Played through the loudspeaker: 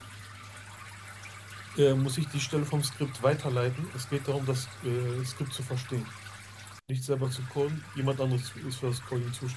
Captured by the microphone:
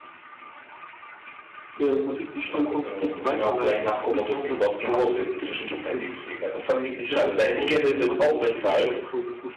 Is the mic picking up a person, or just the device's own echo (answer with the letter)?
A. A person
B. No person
A